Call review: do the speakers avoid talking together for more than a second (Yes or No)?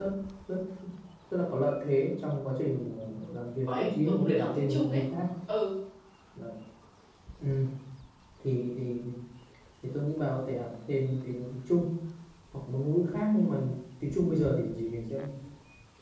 No